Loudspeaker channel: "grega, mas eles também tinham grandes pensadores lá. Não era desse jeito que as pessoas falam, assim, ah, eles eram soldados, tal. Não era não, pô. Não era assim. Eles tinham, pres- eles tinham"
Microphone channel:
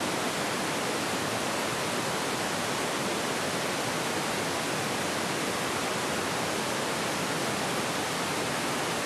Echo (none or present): none